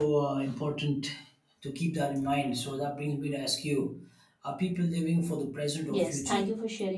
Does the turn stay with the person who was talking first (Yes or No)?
No